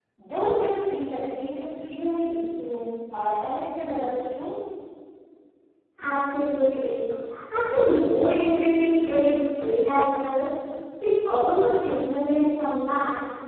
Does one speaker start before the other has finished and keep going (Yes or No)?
No